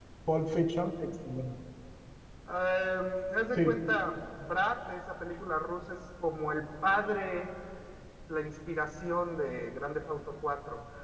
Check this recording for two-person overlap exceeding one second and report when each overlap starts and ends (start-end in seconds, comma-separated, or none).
none